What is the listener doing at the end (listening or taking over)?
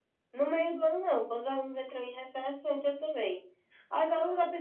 listening